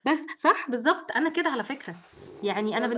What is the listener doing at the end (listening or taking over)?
listening